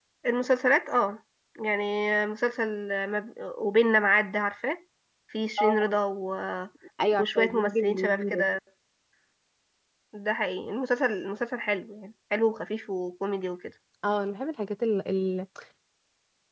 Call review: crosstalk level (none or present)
present